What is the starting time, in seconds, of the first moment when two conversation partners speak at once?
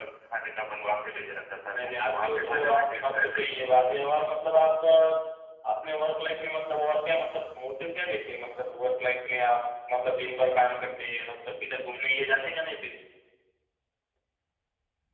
1.7 s

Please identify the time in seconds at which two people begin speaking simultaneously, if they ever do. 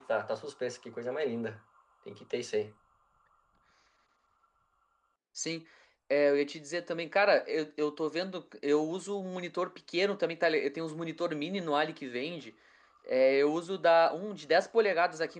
none

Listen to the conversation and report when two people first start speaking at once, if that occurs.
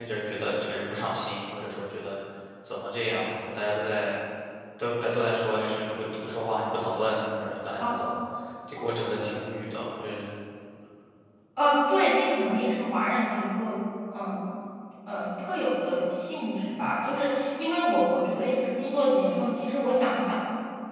none

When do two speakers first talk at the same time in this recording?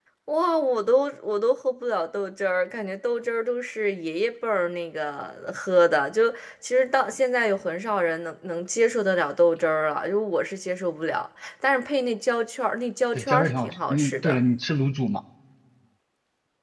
13.2 s

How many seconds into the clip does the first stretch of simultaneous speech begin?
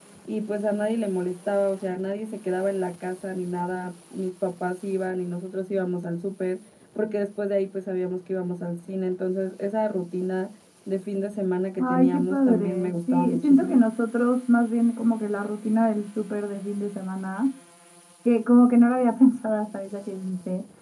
11.8 s

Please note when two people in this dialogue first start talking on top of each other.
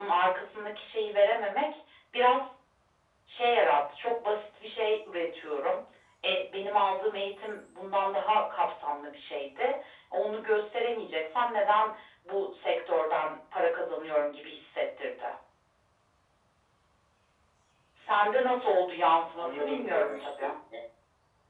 19.1 s

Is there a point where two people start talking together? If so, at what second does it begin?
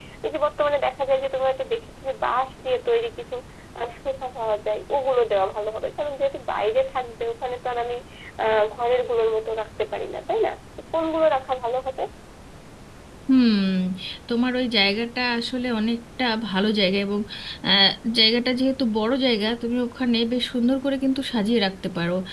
none

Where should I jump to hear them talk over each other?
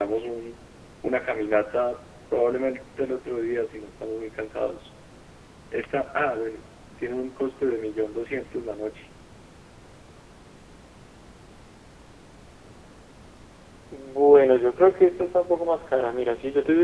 none

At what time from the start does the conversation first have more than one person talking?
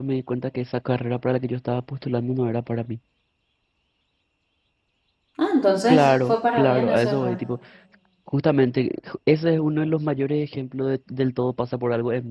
5.9 s

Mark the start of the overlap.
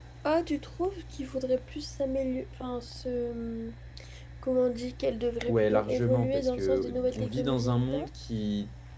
5.5 s

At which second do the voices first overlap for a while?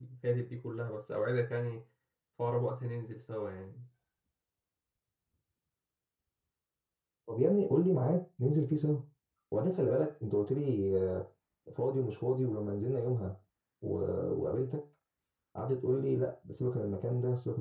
none

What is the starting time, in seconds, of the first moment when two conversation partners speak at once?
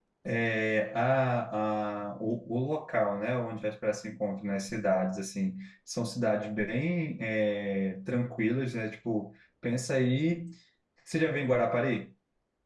none

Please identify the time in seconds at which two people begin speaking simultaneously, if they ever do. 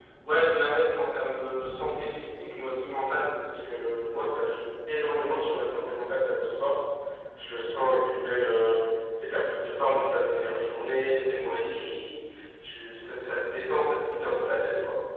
none

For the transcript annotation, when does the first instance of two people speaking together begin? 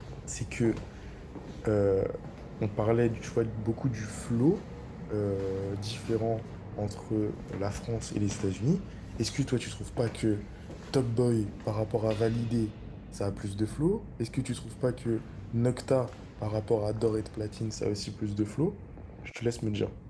none

